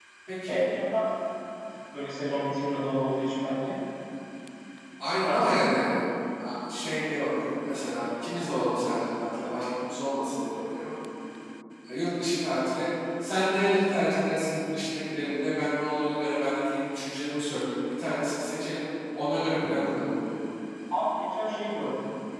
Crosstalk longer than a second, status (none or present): none